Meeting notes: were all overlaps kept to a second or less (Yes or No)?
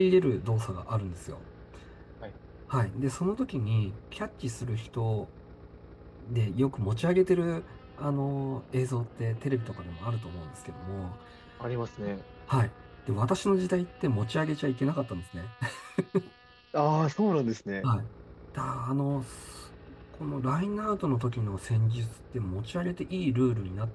Yes